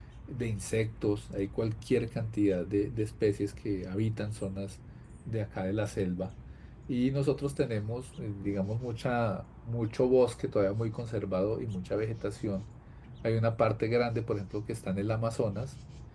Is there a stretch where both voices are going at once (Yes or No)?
No